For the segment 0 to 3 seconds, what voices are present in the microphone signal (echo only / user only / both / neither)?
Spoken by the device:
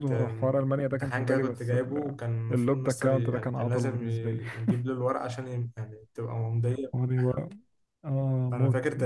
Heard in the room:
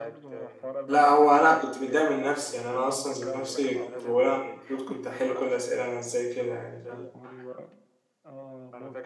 both